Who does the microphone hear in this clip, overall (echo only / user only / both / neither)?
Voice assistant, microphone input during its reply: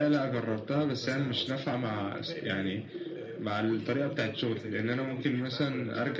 both